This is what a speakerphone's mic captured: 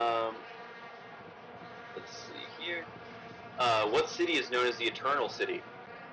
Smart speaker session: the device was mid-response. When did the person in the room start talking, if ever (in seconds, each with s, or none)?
none